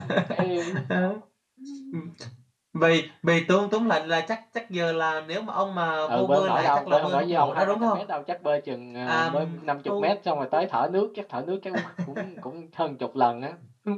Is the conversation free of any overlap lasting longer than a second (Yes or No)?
No